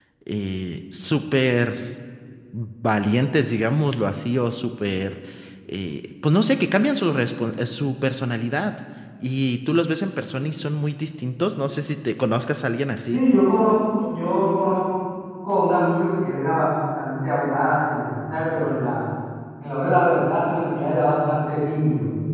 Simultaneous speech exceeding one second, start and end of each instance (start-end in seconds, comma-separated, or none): none